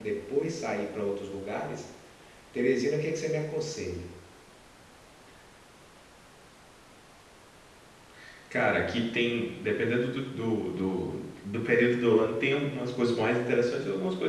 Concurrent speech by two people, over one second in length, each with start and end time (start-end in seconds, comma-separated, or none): none